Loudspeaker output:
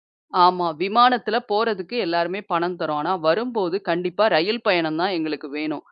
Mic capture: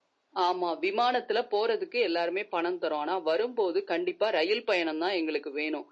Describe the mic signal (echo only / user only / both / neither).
echo only